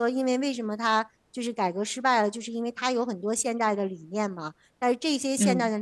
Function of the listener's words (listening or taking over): listening